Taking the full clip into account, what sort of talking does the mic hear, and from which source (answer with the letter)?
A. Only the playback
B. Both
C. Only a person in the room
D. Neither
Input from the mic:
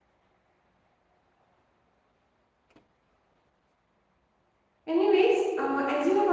C